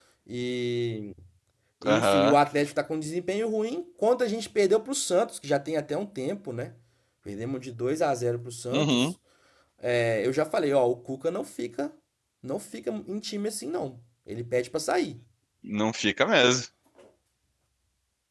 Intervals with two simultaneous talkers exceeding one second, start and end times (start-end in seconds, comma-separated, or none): none